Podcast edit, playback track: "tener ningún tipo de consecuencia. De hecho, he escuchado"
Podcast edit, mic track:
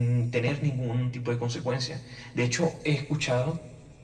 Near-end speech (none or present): none